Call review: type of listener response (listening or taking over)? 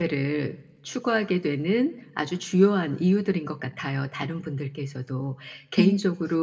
listening